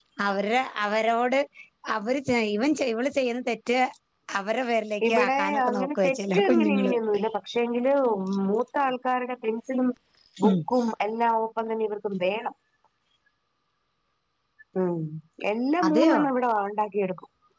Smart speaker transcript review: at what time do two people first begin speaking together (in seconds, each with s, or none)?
5.1 s